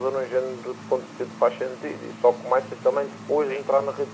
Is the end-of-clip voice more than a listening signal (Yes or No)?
No